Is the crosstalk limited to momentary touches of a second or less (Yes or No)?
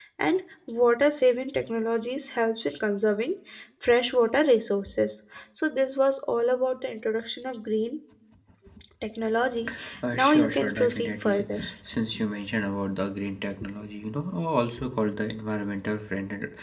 No